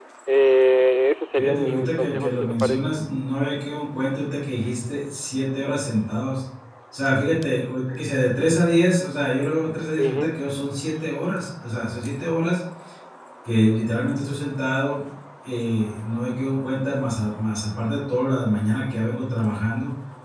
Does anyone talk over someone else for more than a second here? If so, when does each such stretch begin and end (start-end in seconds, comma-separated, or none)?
1.4-2.9